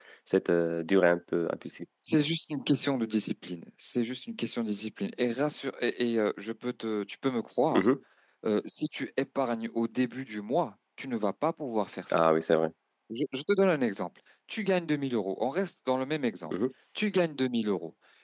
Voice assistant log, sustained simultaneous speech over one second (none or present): none